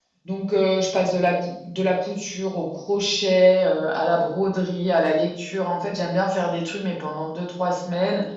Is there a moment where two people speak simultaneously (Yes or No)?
No